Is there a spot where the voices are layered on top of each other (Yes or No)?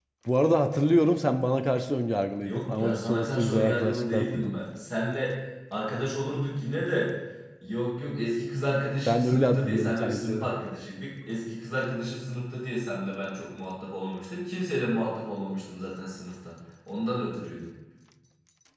Yes